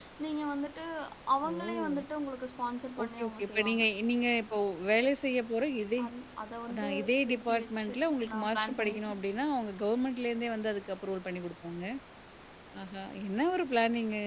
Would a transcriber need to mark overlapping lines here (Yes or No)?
Yes